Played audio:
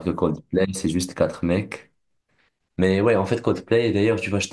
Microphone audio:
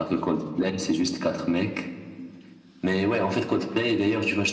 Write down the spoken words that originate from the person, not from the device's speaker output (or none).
none